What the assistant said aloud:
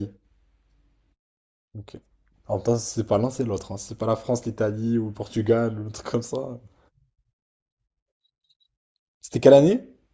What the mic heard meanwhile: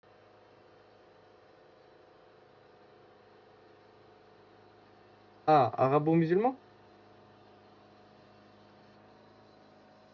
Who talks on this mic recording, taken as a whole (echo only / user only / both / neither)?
user only